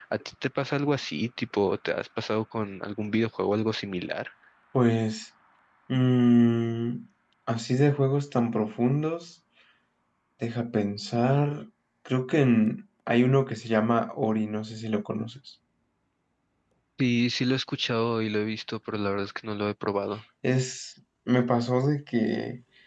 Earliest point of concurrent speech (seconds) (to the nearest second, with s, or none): none